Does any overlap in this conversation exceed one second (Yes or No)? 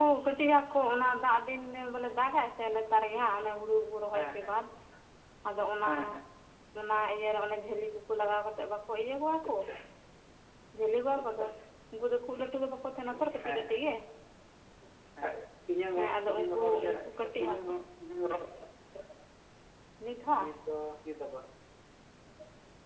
Yes